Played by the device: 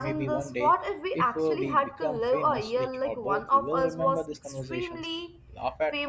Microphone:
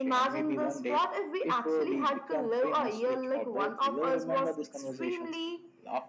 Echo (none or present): present